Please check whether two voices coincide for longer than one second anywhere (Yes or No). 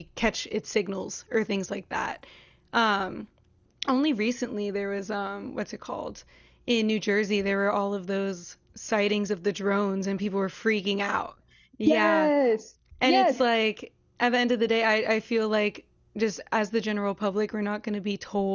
No